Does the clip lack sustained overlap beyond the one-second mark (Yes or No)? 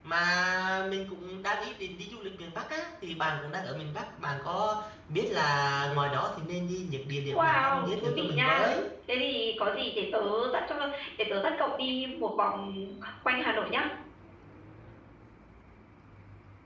No